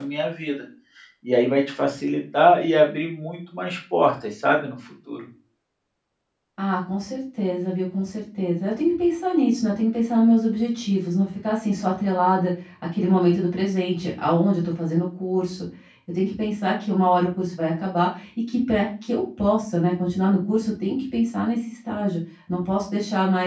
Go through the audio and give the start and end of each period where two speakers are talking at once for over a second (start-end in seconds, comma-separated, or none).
none